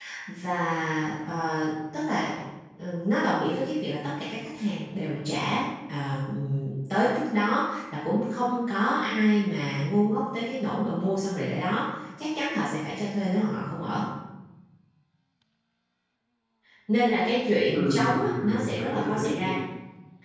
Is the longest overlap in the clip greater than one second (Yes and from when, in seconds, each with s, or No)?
Yes, from 17.7 s